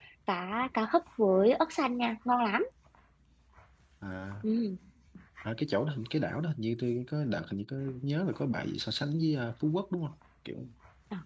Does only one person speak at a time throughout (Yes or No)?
Yes